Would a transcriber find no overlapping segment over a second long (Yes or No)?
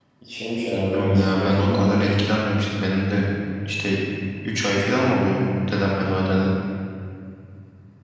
No